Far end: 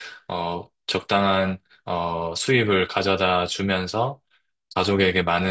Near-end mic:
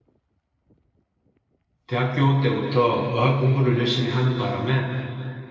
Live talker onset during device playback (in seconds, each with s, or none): 1.8 s